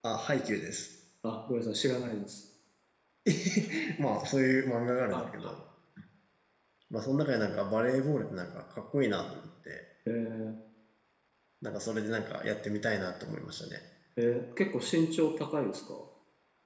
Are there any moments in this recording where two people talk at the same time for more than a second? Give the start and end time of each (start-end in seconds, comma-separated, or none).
none